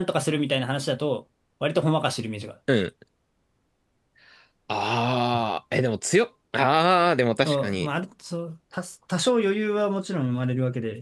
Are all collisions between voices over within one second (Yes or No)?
Yes